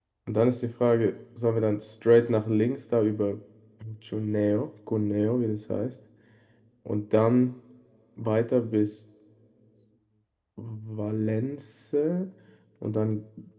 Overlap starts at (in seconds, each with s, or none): none